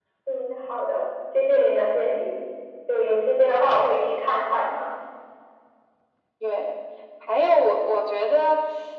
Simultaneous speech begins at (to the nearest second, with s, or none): none